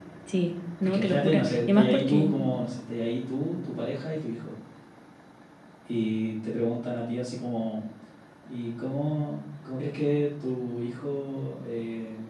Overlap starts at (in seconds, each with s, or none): 0.8 s